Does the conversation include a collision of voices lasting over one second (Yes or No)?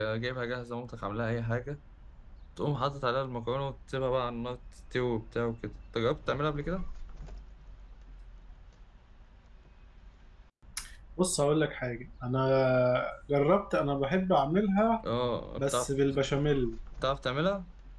No